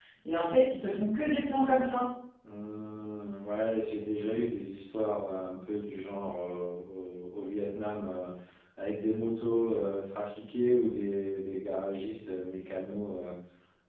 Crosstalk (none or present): none